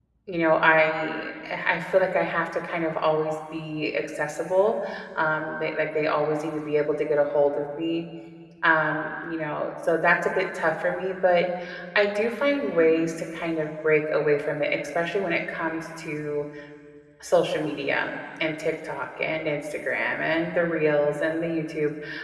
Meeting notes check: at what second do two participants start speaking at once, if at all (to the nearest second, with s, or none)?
none